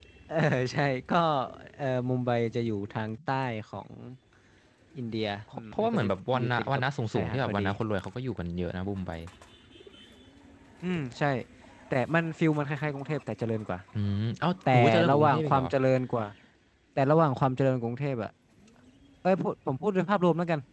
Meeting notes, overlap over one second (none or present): present